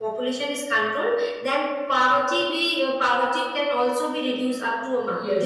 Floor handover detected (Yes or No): Yes